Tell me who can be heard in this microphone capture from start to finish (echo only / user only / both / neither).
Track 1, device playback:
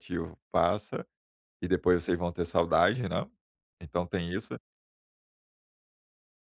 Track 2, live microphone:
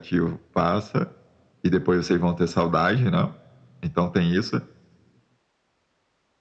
echo only